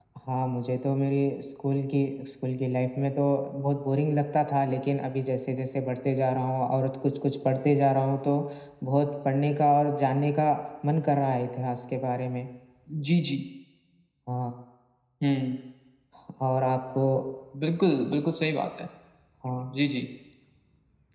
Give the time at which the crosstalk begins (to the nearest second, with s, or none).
none